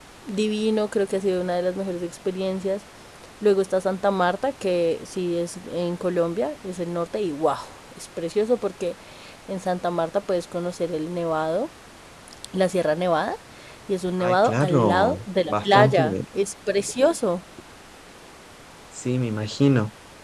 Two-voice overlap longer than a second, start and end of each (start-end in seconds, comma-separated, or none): 14.2-16.0